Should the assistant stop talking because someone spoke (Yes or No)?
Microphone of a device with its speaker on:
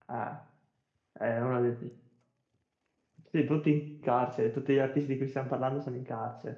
Yes